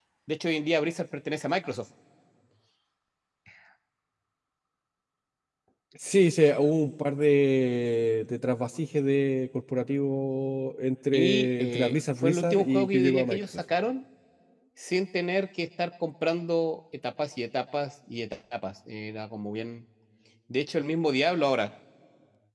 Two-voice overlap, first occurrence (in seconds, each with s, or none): 11.1 s